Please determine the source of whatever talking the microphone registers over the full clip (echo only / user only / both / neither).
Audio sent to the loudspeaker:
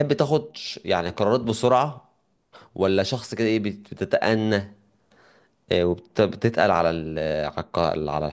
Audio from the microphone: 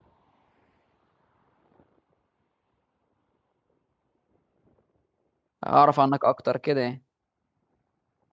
user only